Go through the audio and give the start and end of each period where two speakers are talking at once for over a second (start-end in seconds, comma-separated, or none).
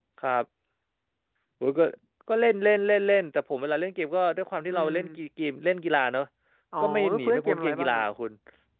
6.8-8.0